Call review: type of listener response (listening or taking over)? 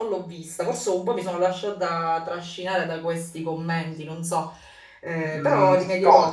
taking over